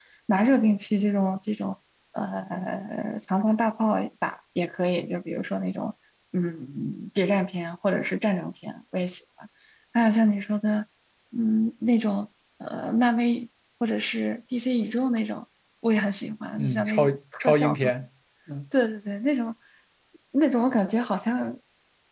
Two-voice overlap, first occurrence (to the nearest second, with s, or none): 17 s